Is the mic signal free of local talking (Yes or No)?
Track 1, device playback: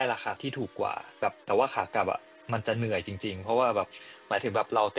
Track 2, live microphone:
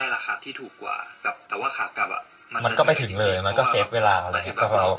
No